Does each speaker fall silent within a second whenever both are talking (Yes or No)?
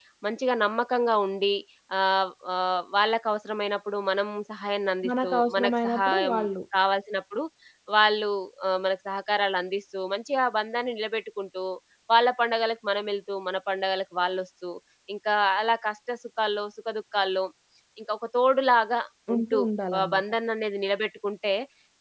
No